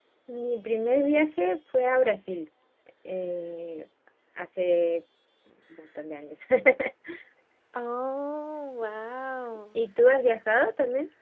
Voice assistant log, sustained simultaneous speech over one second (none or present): none